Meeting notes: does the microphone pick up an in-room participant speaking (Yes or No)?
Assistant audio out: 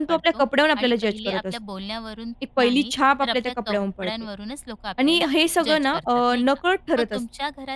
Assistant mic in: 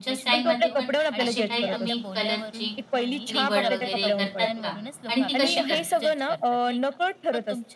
Yes